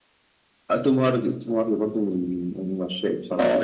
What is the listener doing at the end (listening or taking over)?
taking over